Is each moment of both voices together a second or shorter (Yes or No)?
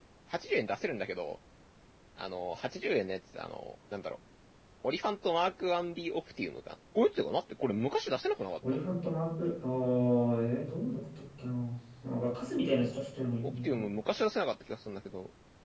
Yes